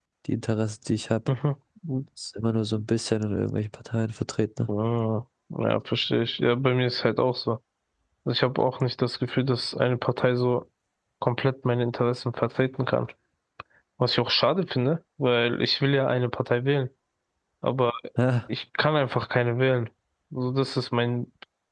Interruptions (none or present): none